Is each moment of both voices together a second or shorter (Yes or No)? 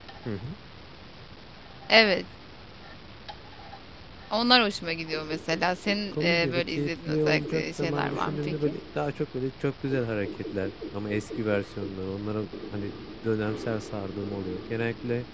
No